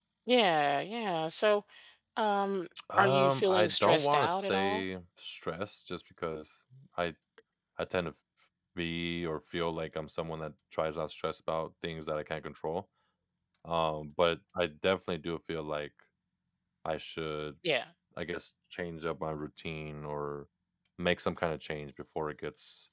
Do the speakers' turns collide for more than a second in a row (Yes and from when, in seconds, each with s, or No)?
Yes, from 3.0 s